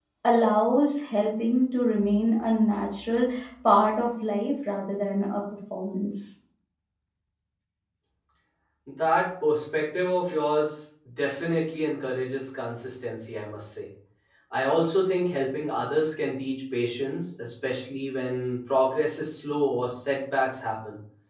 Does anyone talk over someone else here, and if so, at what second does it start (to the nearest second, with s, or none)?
none